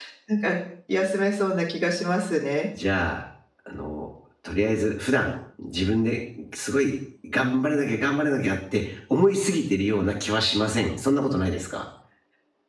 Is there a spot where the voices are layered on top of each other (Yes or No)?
No